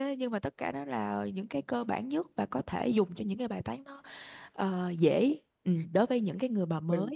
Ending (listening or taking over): taking over